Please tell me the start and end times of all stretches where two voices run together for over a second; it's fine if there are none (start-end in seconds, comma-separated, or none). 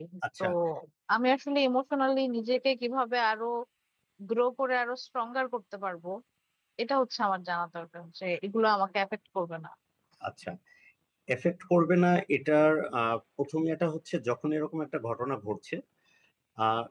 none